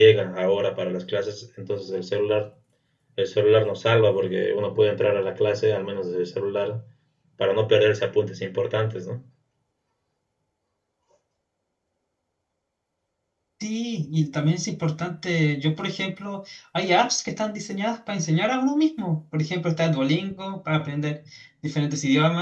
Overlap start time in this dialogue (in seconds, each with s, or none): none